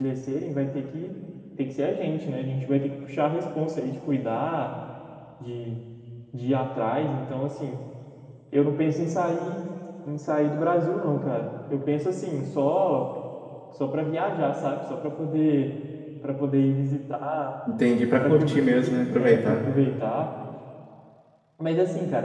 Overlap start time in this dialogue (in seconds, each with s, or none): 18.2 s